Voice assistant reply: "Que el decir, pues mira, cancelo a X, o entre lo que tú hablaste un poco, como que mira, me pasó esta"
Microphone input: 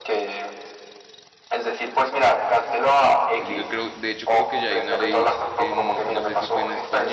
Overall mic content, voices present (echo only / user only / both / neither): both